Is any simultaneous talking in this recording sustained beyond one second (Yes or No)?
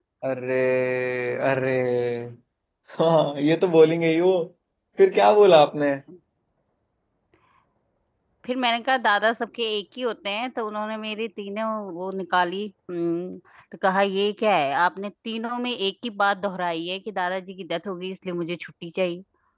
No